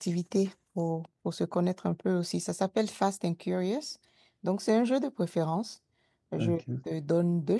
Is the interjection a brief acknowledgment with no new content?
Yes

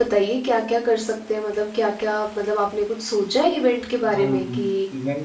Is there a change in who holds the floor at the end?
Yes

